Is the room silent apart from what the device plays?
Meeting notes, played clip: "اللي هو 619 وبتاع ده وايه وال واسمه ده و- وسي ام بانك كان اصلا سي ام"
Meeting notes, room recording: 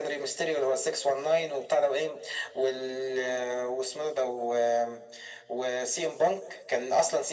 Yes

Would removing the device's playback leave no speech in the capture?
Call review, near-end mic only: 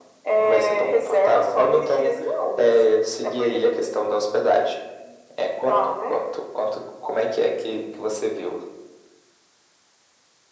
Yes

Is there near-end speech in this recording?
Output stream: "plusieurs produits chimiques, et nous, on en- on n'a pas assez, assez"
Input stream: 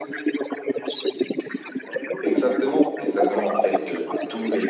Yes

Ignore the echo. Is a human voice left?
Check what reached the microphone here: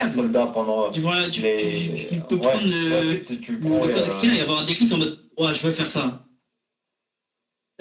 No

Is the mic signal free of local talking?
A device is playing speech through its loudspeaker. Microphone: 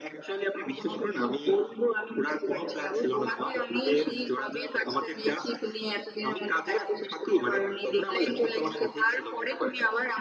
Yes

